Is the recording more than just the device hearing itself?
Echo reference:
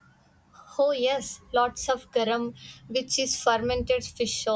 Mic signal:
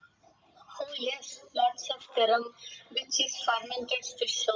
No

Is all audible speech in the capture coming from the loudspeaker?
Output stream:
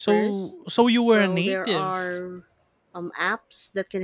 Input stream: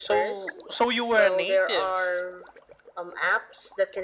Yes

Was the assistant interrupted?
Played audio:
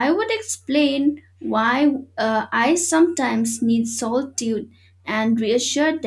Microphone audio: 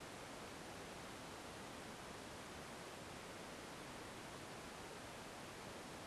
No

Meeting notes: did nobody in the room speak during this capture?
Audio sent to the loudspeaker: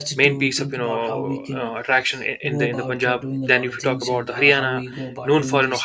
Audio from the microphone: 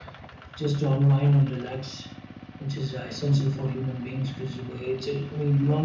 No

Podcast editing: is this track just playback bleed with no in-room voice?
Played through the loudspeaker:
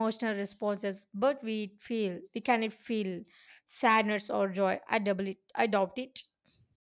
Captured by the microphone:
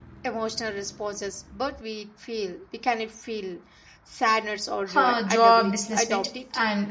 No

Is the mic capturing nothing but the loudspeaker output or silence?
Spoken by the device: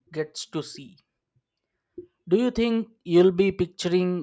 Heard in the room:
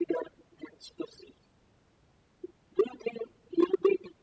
Yes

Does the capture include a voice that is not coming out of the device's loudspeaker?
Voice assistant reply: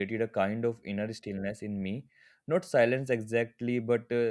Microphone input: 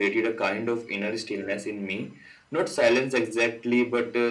No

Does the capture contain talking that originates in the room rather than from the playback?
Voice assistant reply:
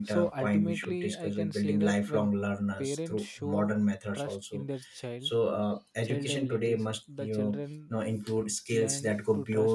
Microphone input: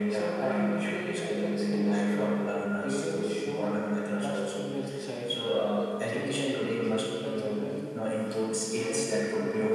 No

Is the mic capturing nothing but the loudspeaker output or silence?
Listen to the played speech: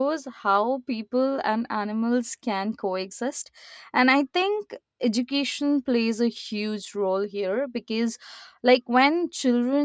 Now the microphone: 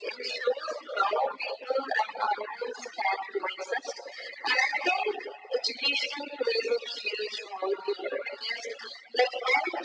Yes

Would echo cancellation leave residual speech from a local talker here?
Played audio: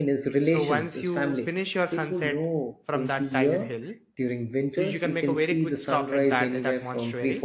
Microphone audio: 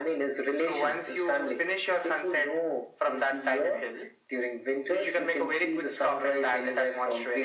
No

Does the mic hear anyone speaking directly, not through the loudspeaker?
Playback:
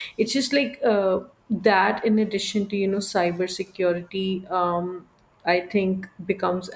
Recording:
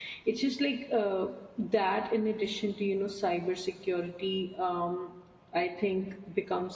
No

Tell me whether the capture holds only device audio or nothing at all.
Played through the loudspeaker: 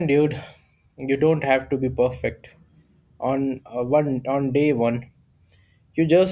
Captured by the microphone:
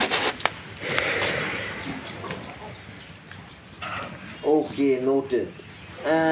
No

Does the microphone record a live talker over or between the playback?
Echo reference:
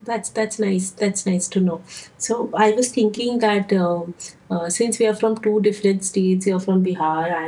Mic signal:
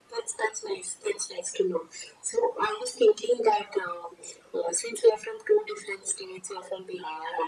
No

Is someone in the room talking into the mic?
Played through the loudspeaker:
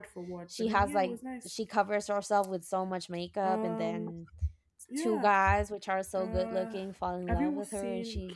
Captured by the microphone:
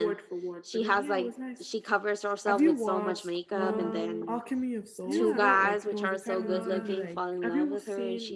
Yes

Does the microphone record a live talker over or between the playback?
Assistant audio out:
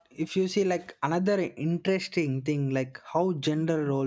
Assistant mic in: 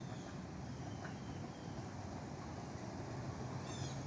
No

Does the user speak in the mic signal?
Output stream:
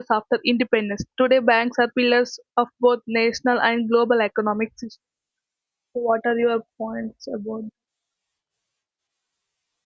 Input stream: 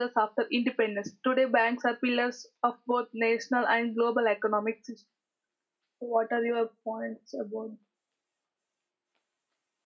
No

